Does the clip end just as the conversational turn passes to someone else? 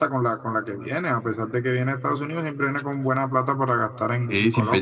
Yes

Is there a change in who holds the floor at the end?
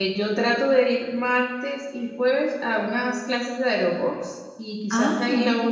No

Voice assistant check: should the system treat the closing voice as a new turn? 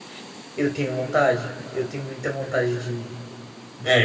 Yes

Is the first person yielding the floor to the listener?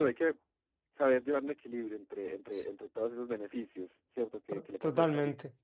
Yes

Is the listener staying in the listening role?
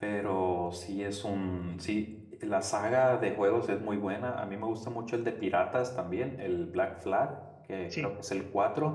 Yes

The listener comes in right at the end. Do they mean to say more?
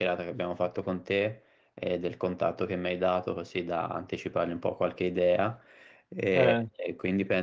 No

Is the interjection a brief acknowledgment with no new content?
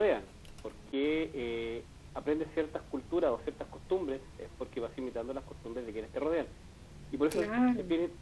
Yes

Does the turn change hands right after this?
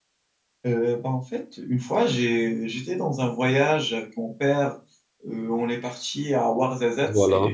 No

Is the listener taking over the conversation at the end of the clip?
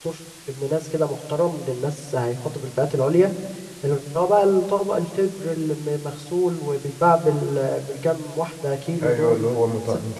Yes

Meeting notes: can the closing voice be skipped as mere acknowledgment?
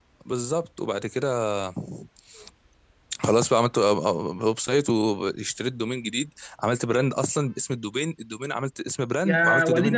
No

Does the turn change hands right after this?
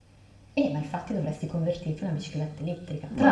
Yes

